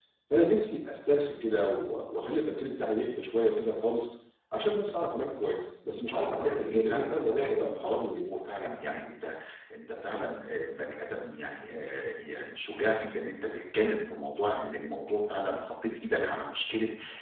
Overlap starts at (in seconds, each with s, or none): 6.1 s